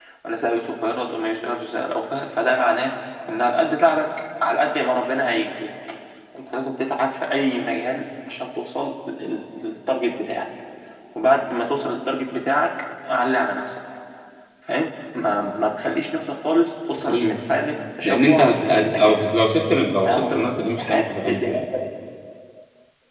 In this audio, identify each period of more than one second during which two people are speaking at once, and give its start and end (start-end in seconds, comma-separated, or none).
18.0-19.3, 20.0-21.6